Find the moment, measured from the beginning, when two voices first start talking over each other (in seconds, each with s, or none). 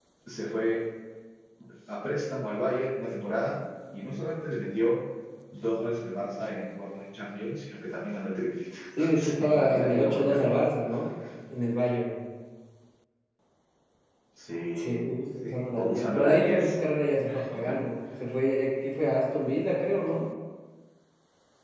9.1 s